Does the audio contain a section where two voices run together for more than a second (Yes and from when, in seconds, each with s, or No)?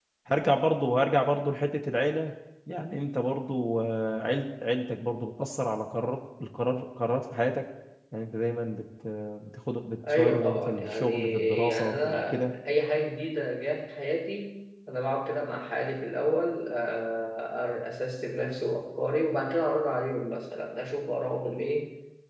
Yes, from 10.0 s